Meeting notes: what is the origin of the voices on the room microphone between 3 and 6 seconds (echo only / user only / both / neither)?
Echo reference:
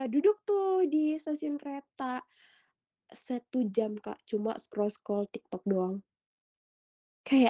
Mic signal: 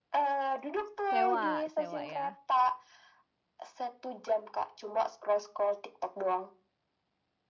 echo only